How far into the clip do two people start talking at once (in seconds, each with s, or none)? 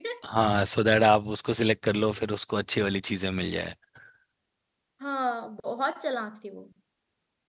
none